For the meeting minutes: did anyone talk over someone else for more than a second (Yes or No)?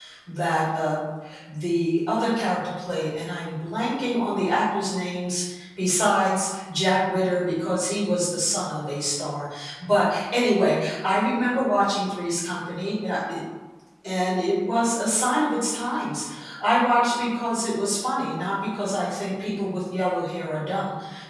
No